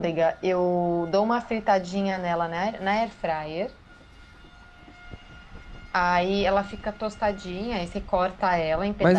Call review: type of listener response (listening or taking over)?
taking over